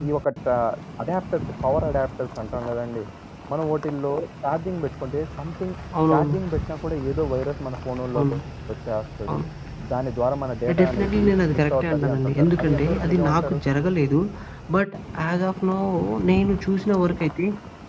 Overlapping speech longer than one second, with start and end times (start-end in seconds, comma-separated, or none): 10.7-13.6